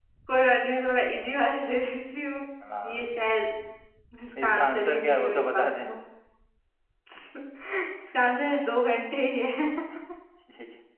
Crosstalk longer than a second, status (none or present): present